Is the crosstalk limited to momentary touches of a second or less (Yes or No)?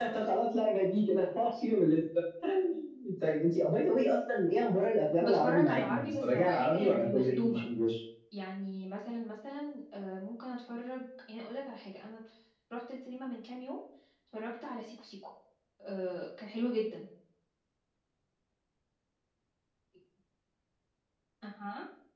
No